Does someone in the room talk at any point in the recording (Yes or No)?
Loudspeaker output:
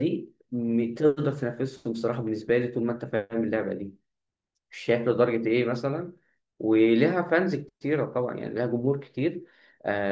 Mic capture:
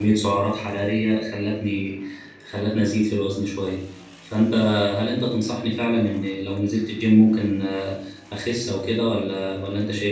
Yes